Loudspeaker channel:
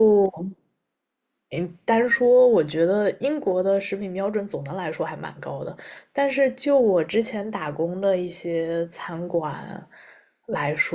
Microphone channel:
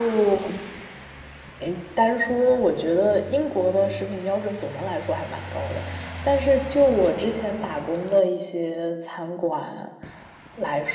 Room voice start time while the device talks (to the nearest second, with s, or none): none